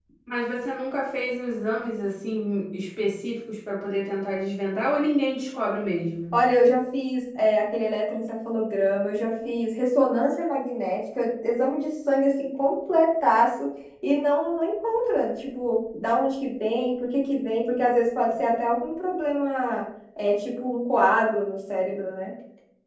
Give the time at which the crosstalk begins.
none

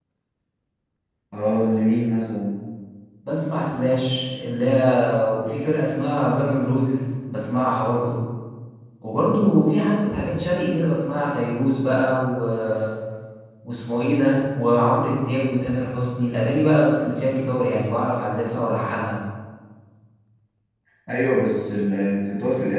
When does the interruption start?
none

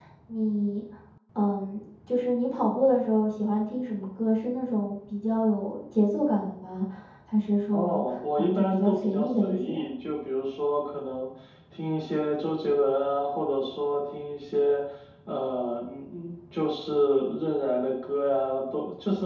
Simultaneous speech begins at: 7.7 s

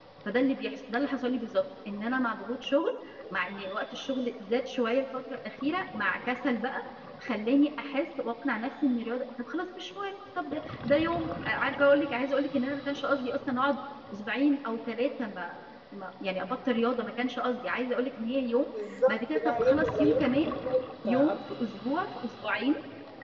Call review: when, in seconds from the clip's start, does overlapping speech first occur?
19.1 s

